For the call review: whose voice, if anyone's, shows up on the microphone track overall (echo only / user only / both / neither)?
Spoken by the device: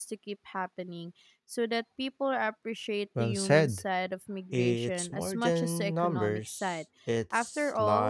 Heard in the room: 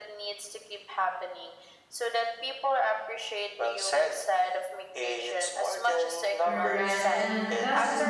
both